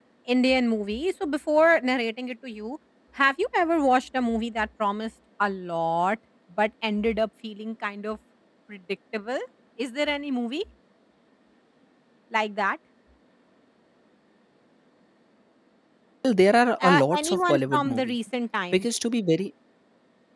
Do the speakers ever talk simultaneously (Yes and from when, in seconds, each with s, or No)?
Yes, from 16.8 s